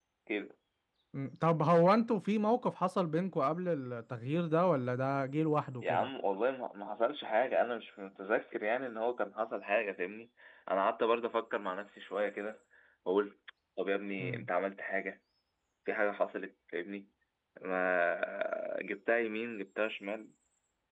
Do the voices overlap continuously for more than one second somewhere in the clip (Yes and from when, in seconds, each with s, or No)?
No